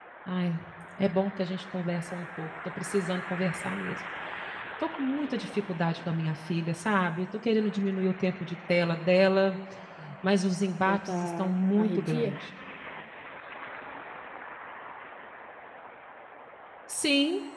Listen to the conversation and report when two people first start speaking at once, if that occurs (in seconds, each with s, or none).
10.8 s